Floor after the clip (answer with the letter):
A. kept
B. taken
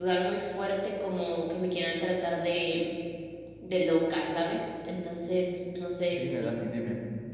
B